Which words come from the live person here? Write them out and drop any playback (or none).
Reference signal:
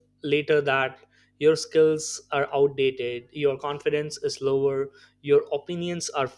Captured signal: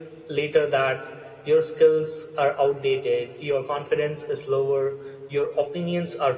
none